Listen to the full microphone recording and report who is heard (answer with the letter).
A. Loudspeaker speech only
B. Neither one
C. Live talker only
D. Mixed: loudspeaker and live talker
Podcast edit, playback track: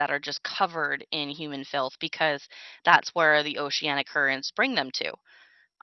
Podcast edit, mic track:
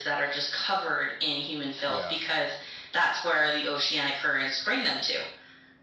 D